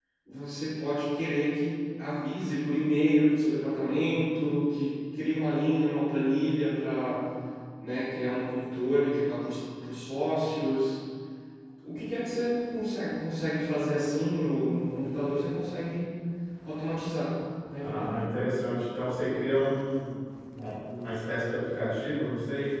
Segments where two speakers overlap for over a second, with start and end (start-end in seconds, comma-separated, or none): none